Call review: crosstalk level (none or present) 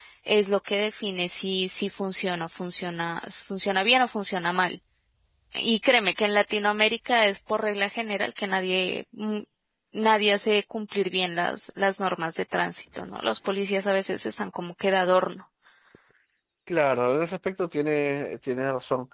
none